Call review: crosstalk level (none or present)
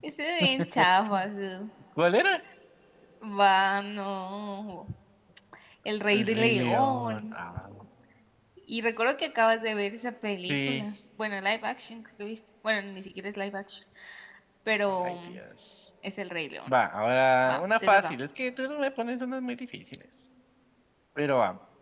present